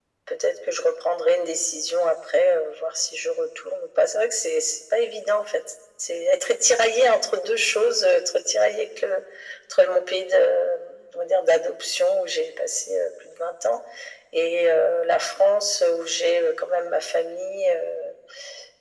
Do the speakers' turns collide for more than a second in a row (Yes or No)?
No